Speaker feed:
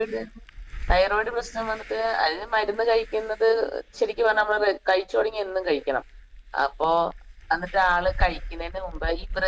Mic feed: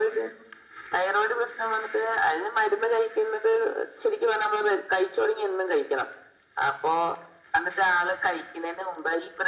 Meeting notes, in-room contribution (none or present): none